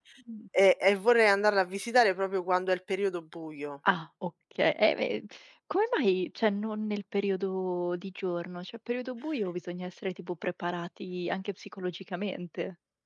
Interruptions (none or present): none